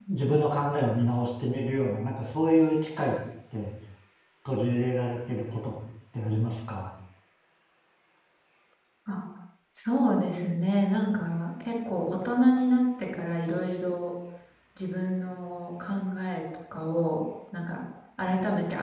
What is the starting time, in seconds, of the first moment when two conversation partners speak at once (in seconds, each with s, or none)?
none